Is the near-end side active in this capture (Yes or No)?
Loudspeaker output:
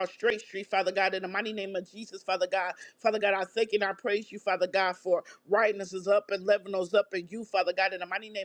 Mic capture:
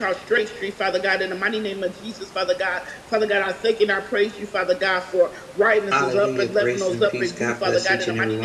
Yes